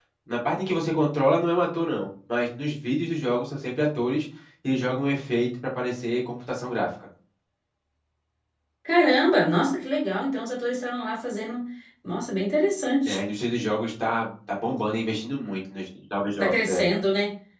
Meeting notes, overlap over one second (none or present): none